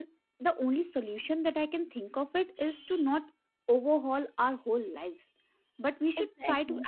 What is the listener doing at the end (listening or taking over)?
listening